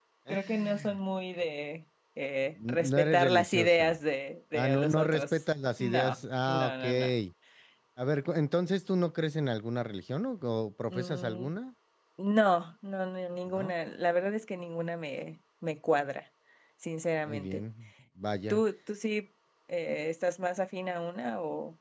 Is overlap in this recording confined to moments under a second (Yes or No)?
No